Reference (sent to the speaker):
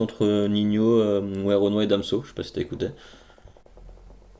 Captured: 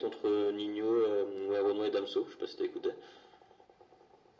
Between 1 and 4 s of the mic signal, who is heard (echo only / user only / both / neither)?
echo only